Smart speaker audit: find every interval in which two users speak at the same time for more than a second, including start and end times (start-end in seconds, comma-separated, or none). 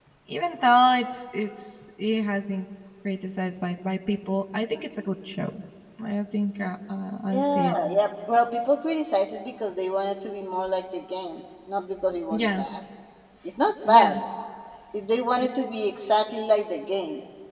none